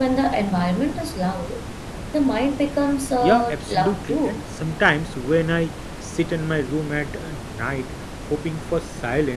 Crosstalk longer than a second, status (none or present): present